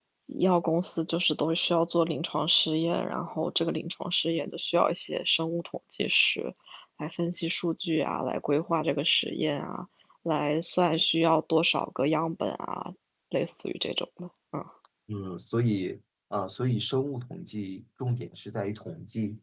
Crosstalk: none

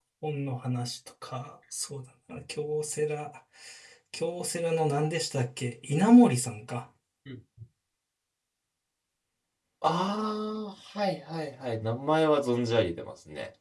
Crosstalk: none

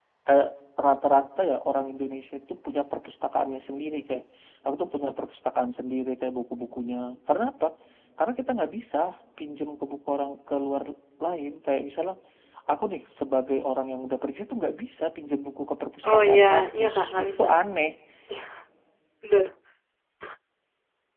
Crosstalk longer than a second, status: present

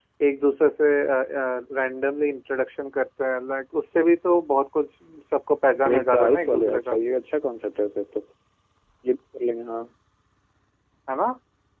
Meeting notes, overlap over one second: present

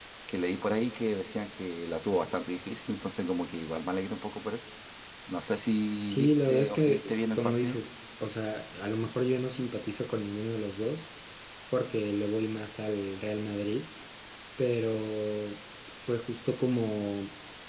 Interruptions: present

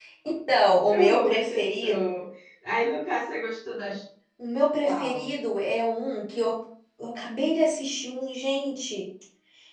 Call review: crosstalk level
present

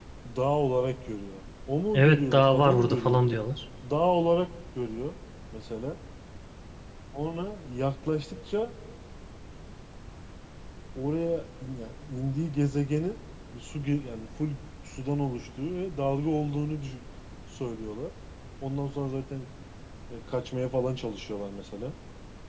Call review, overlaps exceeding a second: present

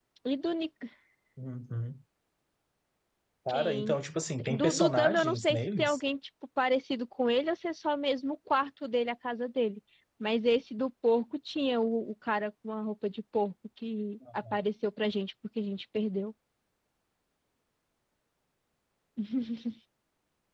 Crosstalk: present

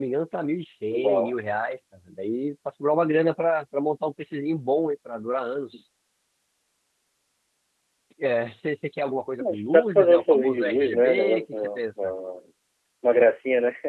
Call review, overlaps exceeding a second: present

